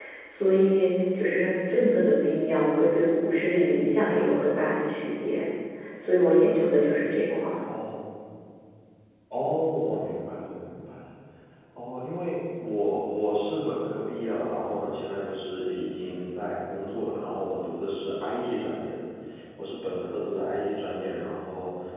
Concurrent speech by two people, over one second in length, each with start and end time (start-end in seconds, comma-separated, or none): none